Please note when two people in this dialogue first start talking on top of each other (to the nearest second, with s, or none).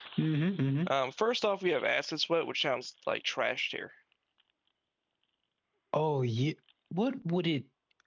none